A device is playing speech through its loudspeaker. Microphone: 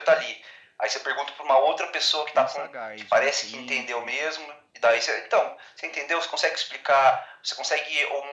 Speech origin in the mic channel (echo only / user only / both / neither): both